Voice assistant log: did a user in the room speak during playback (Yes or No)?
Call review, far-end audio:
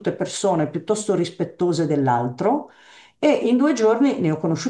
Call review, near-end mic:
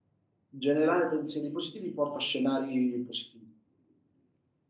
Yes